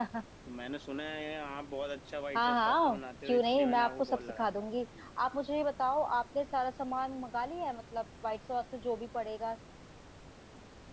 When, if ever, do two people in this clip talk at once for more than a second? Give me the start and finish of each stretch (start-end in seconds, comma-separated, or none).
2.4-4.7